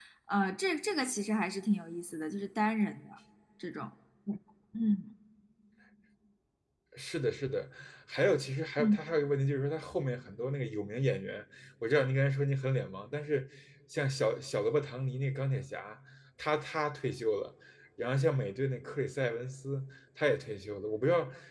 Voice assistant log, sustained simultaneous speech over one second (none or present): none